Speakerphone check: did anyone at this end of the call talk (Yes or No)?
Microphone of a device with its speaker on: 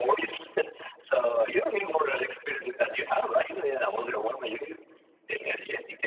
No